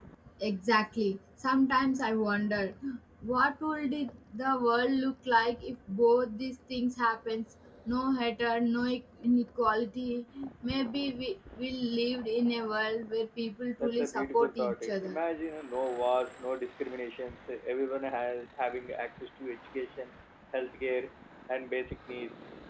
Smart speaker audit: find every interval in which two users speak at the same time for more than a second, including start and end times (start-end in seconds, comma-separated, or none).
13.8-15.2